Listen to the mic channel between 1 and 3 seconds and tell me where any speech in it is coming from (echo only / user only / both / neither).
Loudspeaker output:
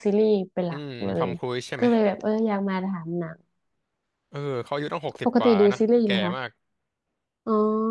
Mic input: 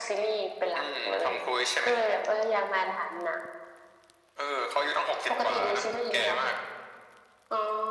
echo only